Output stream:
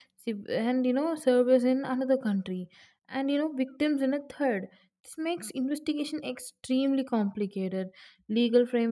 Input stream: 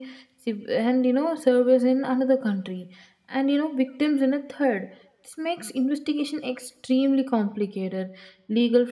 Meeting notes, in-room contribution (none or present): none